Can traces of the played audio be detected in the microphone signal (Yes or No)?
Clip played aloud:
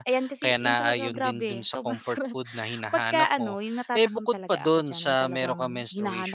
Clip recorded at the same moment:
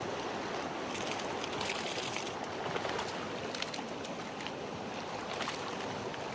No